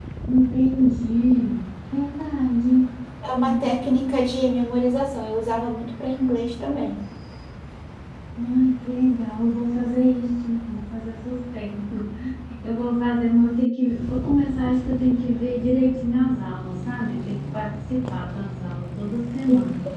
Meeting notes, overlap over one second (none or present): none